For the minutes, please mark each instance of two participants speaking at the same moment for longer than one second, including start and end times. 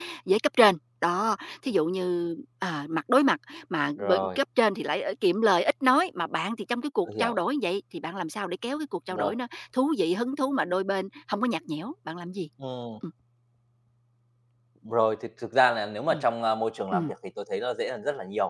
none

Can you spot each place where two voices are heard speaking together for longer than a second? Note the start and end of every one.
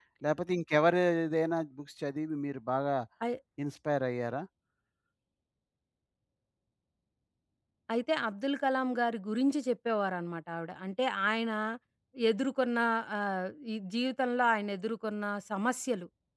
none

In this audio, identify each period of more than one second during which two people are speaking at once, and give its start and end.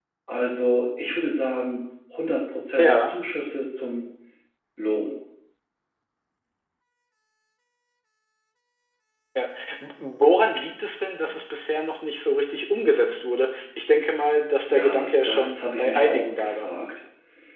14.7-16.7

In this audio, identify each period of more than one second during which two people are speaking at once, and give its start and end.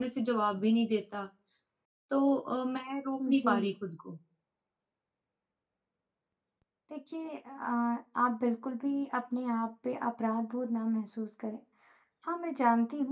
none

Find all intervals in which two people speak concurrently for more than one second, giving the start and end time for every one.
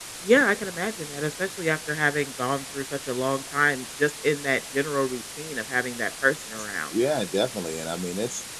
none

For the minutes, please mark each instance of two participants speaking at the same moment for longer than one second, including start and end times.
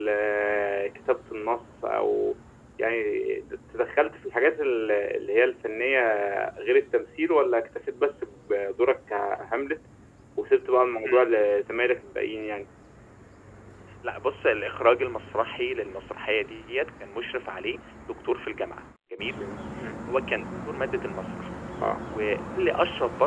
none

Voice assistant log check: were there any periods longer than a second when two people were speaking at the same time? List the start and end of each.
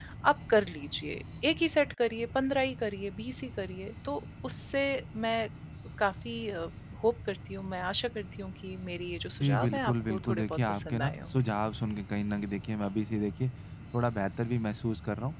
9.4-11.4

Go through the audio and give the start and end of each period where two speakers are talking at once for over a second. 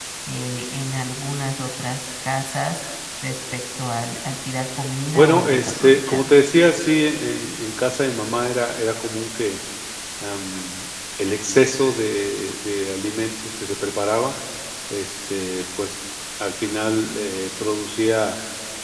5.1-6.3

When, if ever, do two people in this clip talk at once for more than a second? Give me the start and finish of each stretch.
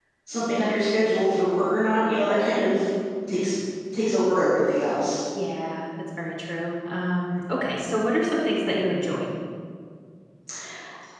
none

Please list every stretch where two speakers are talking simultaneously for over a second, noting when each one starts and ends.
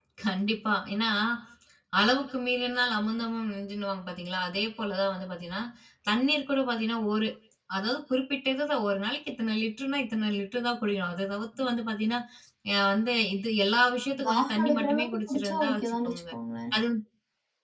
14.2-16.2

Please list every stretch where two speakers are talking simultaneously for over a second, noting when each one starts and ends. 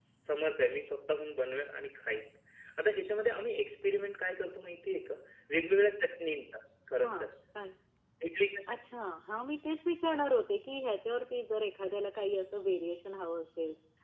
none

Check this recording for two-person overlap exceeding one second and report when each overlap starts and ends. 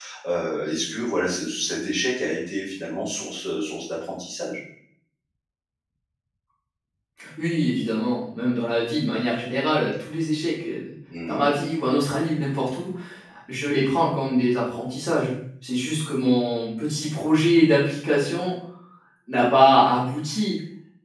none

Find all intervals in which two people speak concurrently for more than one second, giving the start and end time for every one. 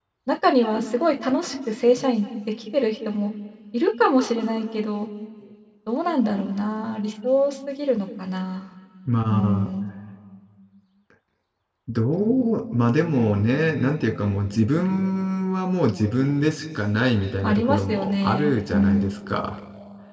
17.4-19.1

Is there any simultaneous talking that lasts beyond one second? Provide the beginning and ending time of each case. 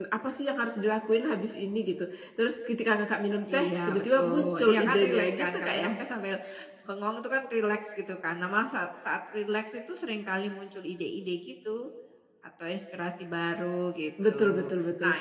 3.5-5.9

